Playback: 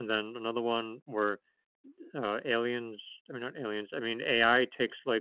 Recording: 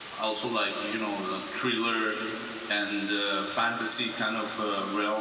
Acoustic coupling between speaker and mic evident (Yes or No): No